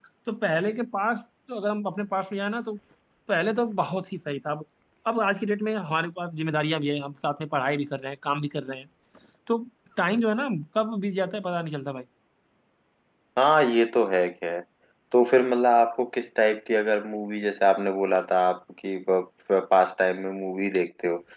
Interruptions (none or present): none